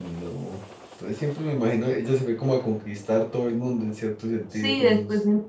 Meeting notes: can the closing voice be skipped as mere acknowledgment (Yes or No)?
No